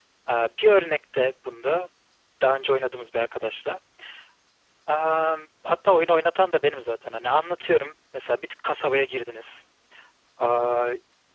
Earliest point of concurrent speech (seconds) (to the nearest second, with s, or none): none